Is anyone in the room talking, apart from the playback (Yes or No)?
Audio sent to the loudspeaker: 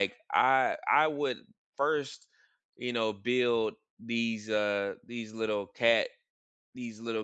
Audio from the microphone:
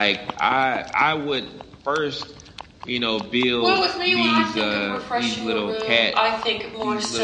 Yes